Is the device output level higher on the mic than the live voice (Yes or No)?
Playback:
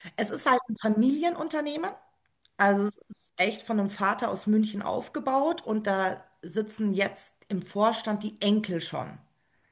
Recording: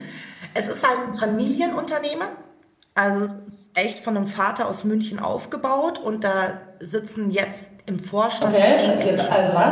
No